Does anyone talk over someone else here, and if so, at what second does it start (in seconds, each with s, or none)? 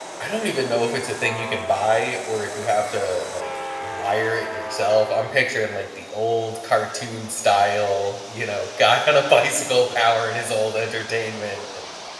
none